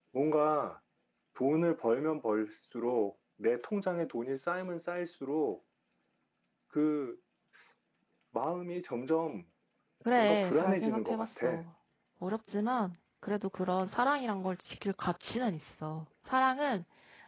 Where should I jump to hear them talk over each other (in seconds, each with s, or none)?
10.2 s